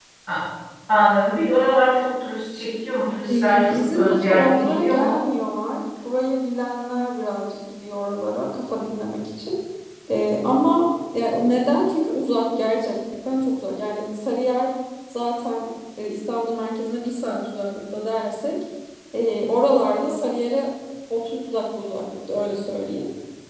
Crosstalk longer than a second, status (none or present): present